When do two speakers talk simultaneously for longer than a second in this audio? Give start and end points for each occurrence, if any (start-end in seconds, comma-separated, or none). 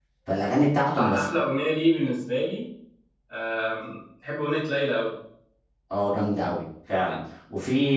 none